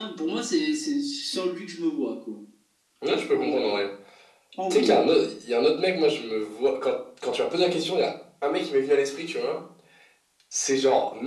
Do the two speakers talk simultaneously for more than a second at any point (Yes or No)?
No